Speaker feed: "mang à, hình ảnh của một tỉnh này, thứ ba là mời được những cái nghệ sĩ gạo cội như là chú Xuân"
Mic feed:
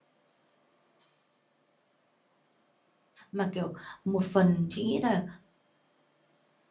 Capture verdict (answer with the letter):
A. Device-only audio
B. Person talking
B